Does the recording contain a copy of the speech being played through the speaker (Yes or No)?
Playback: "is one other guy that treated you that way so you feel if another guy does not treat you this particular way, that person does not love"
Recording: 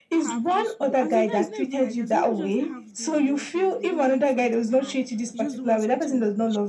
Yes